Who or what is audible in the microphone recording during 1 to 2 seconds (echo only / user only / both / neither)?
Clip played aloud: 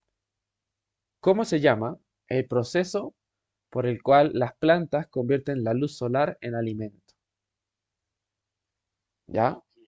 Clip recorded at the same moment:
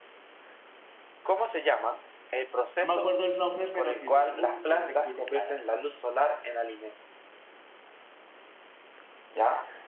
echo only